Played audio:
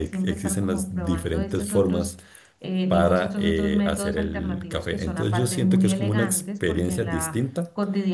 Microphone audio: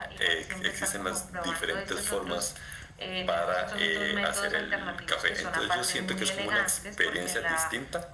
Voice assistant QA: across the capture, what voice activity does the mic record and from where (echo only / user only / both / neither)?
echo only